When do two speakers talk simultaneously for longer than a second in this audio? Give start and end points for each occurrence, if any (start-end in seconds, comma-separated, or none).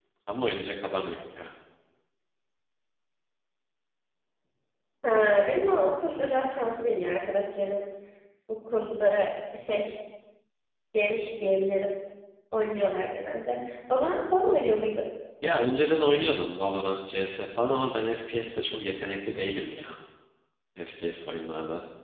none